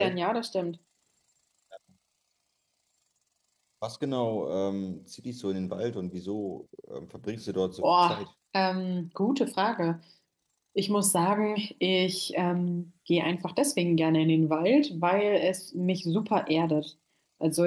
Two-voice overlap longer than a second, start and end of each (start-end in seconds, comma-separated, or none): none